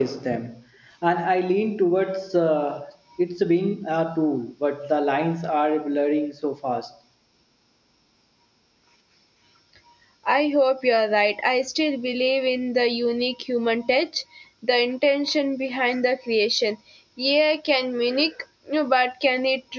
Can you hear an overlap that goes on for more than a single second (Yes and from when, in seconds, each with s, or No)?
No